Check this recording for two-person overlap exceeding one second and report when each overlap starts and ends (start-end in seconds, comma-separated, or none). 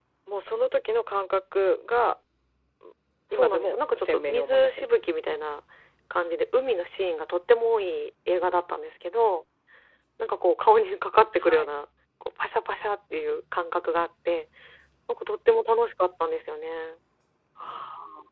3.3-4.8